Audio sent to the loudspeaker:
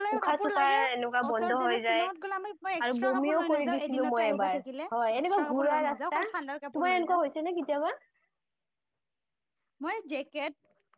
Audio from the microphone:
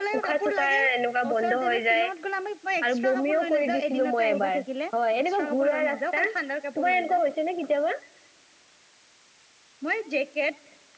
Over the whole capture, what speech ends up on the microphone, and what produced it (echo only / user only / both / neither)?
echo only